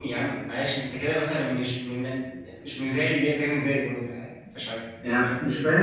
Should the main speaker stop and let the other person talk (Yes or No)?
Yes